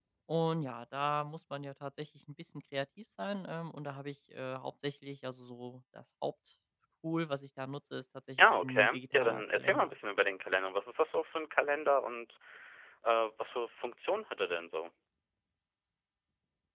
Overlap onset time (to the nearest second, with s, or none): 8 s